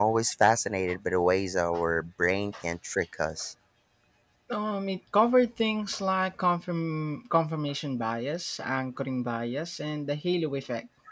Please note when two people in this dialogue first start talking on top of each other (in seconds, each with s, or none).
none